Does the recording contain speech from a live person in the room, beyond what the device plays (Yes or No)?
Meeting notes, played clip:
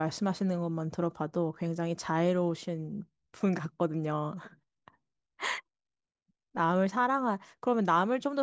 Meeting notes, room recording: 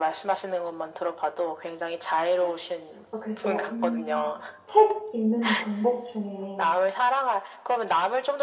Yes